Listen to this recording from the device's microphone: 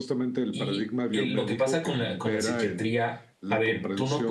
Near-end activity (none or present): present